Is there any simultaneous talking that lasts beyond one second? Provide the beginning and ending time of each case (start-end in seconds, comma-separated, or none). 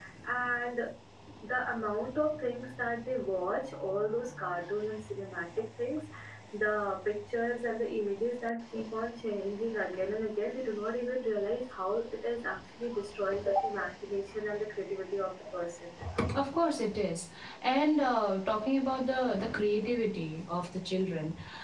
none